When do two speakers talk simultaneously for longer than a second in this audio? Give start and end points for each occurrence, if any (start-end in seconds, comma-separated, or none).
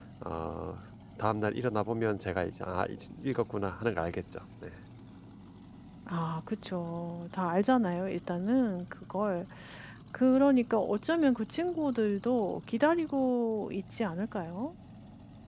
none